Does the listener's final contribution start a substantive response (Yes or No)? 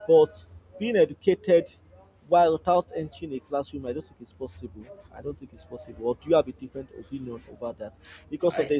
No